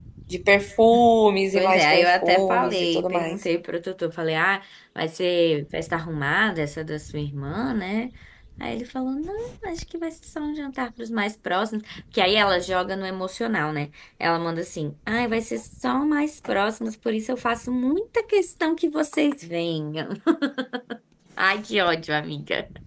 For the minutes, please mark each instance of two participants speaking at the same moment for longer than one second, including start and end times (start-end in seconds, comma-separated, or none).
1.5-3.5